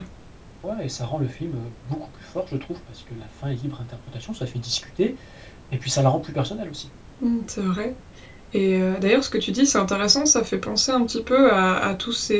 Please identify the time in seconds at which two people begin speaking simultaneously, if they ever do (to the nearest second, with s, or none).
none